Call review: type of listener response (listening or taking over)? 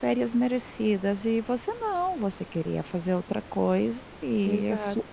taking over